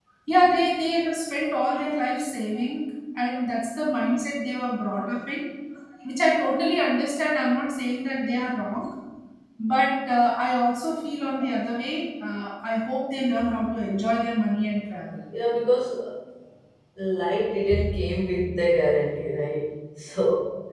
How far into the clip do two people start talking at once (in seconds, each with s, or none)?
none